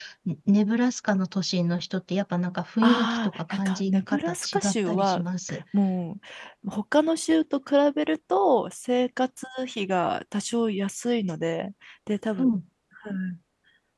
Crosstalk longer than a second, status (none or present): present